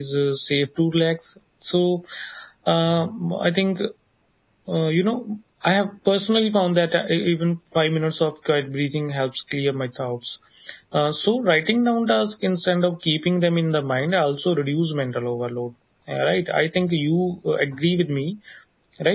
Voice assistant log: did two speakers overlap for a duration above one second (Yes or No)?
No